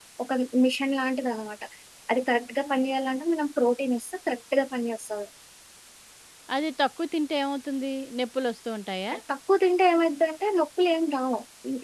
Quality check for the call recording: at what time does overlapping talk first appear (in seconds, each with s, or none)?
none